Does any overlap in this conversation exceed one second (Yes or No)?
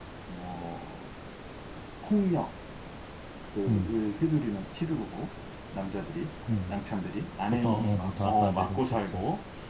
Yes